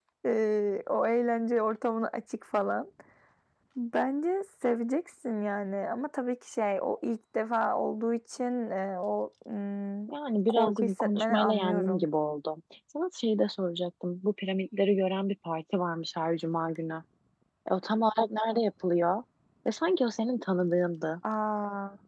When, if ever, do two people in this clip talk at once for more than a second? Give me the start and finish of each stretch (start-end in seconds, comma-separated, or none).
10.5-12.1